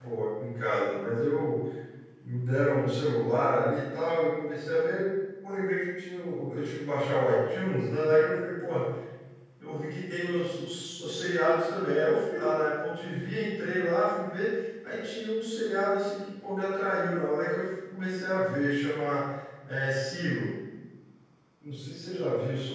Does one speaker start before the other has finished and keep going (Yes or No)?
No